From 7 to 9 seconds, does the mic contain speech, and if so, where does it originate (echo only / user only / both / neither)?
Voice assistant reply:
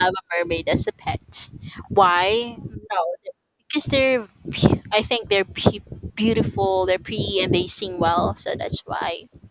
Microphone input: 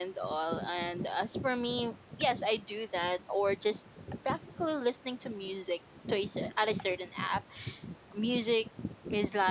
user only